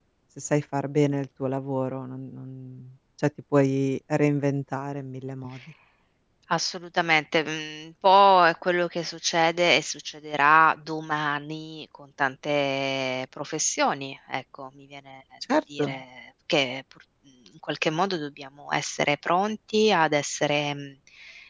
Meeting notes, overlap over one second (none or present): none